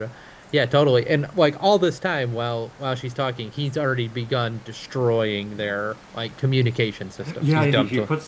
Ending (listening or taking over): taking over